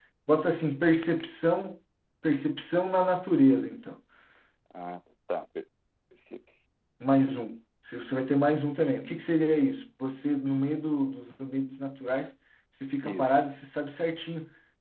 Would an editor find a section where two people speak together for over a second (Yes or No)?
No